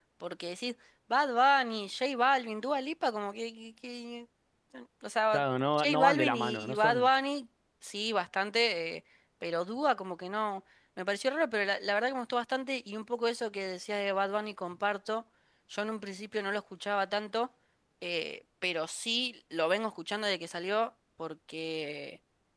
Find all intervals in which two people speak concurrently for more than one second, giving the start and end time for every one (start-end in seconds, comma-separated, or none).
5.8-7.1